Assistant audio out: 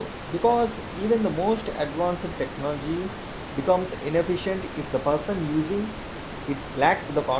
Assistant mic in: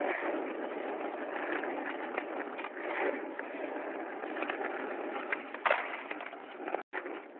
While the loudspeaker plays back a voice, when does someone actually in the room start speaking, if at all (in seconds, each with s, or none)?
none